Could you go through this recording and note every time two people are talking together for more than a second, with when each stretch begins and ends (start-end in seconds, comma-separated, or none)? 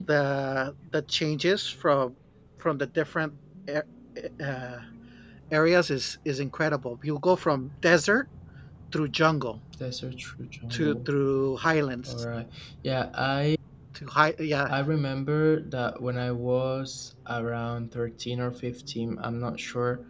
none